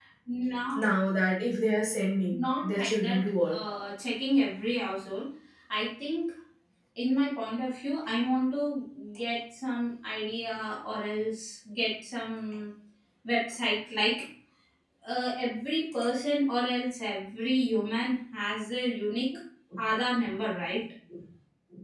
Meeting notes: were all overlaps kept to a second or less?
No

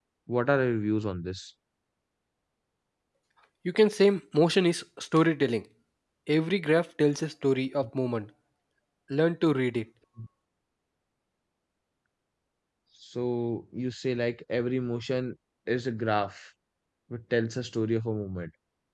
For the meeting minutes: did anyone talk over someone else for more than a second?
No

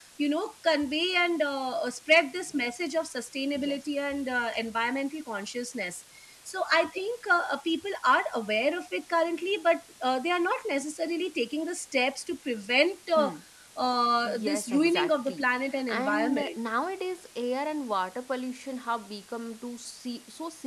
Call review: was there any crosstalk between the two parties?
Yes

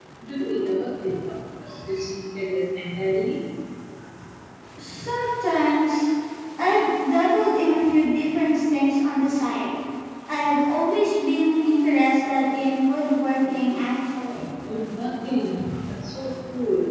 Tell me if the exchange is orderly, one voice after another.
Yes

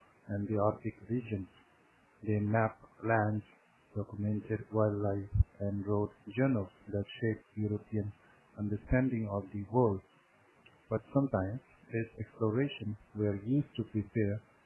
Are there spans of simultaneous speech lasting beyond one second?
No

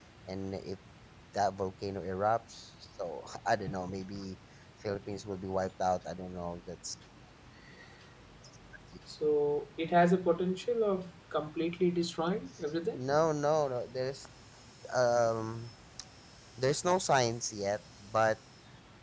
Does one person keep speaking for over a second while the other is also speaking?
No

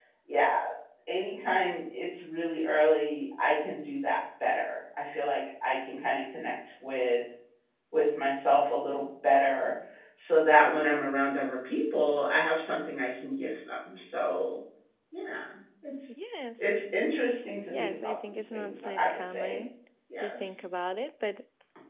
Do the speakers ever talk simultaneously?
Yes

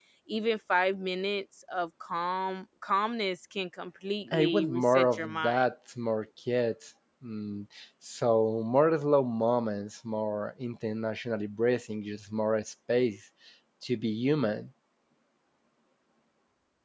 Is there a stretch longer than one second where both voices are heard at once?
Yes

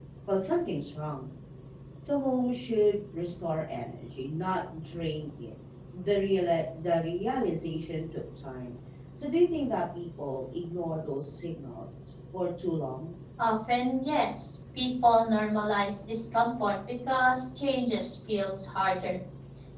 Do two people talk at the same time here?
No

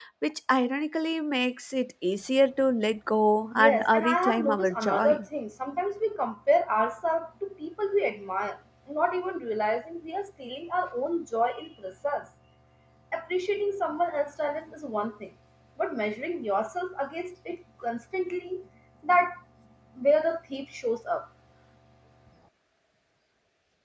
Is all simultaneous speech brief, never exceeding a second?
No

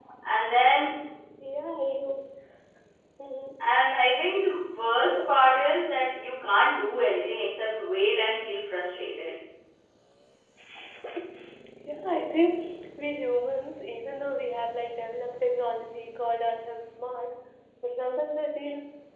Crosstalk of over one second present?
No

